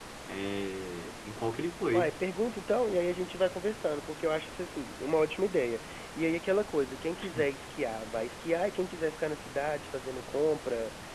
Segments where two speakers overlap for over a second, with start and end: none

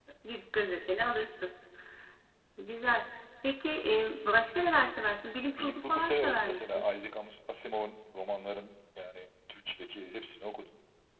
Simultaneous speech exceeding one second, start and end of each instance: 5.6-6.9

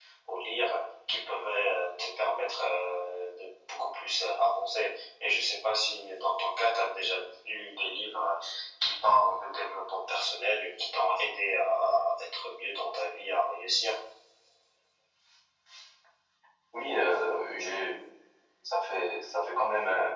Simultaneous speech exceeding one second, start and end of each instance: none

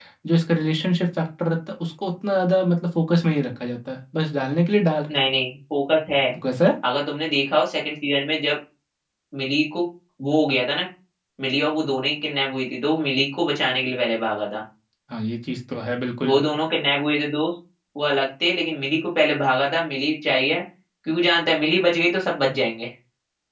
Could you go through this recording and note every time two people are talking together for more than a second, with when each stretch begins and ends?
none

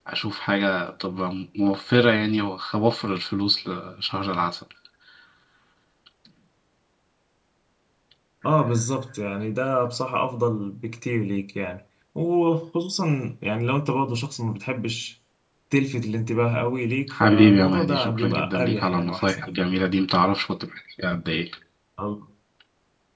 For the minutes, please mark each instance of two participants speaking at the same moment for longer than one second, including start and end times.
17.1-19.5

